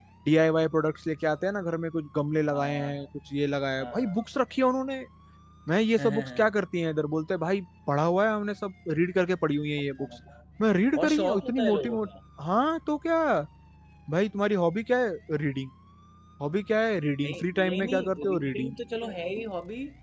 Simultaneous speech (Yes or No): Yes